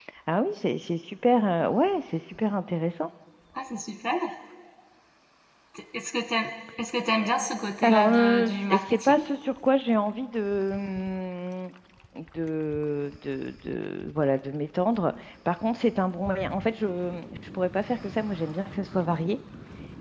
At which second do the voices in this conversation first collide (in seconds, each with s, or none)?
7.8 s